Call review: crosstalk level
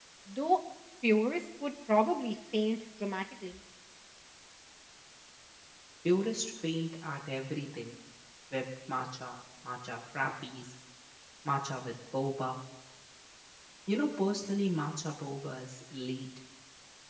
none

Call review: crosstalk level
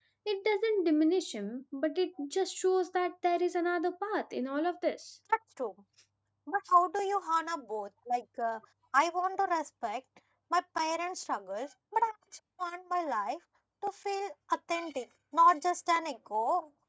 none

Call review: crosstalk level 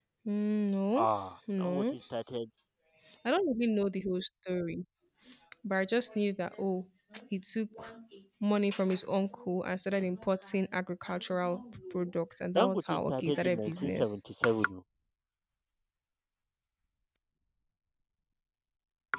present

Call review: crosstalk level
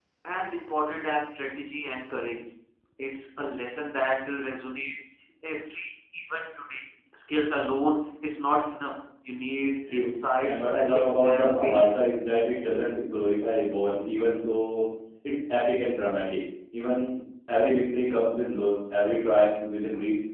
present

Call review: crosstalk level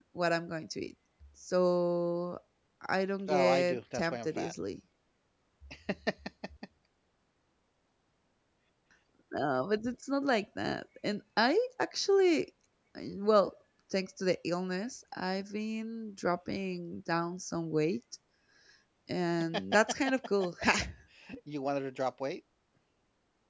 present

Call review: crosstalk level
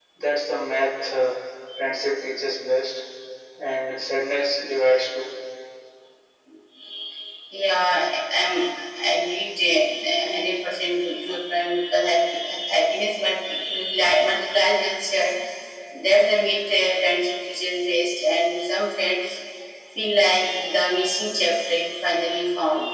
none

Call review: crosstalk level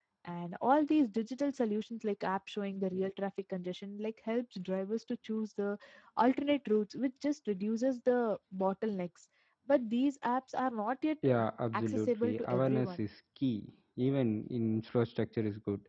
present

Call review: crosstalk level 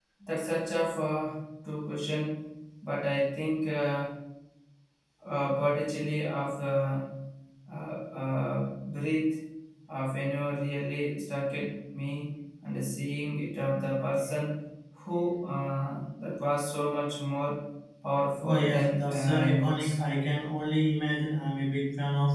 present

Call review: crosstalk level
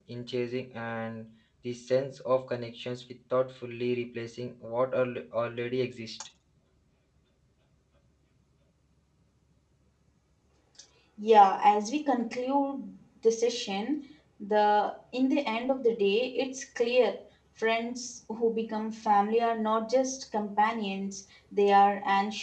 none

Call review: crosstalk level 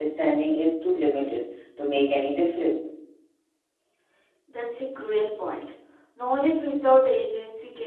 none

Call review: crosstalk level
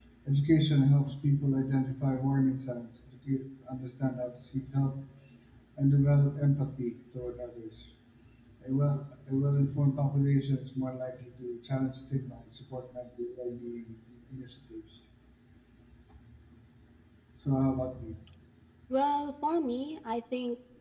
none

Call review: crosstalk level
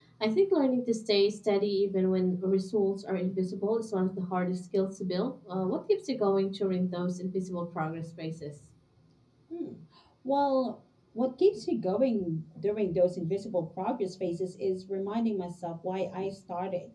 none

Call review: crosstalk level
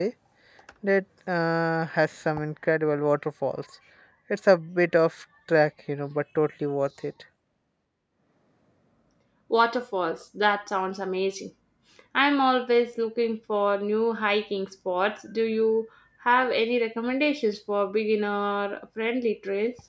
none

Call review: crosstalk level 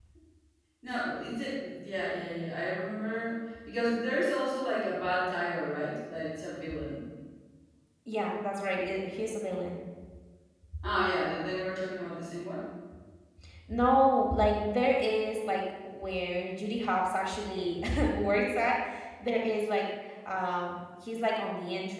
none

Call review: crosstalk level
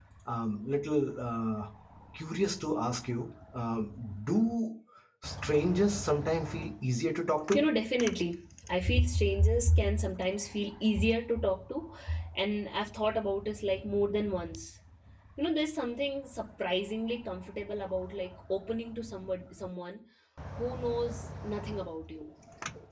none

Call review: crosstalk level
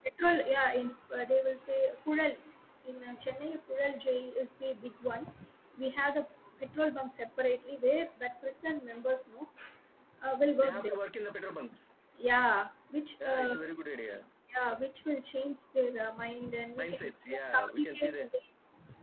present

